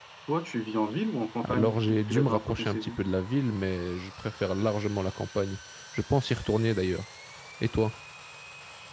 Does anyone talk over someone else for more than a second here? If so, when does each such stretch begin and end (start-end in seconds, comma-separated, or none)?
1.4-3.0